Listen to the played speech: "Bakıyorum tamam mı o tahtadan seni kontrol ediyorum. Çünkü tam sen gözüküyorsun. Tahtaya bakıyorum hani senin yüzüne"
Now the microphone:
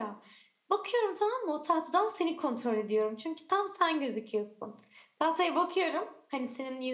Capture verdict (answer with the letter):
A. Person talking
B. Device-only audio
B